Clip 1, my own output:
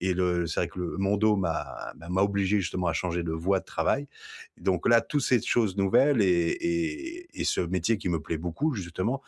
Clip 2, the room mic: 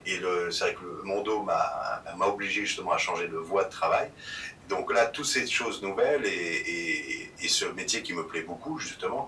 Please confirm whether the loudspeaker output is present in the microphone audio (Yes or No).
Yes